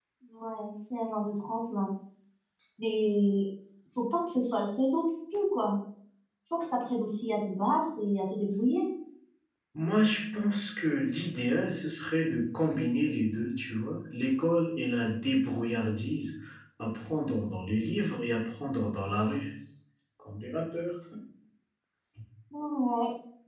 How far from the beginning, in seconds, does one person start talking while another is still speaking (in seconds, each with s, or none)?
none